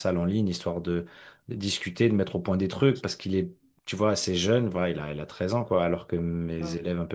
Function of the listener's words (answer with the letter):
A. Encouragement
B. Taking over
A